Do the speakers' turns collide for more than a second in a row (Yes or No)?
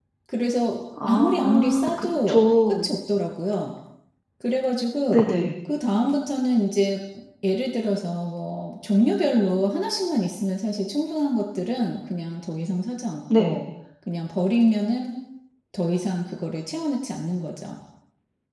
Yes